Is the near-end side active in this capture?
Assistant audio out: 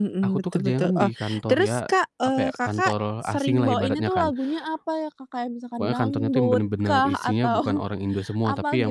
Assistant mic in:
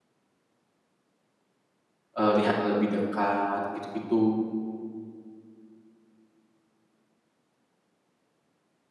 Yes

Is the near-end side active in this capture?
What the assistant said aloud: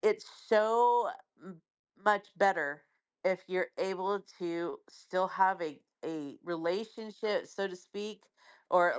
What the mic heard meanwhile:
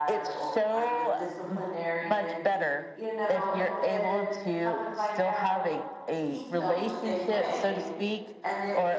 Yes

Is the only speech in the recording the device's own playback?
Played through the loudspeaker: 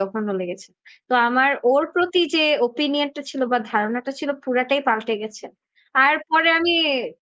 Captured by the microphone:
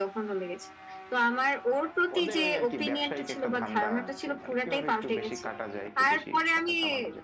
No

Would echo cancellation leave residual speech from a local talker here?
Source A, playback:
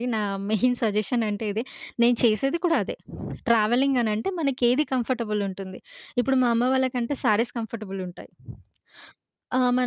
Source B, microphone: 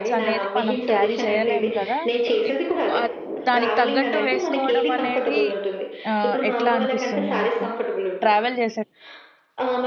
Yes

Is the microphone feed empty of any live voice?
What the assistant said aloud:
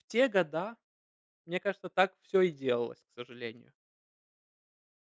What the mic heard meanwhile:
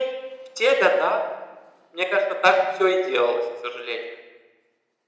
Yes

